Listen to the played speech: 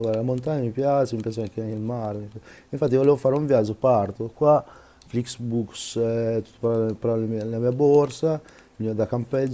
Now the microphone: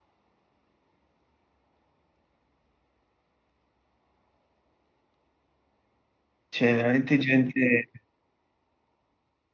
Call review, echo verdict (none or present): none